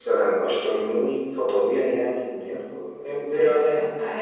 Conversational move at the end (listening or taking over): taking over